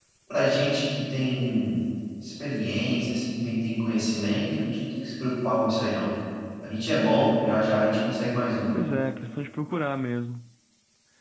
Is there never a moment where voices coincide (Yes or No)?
Yes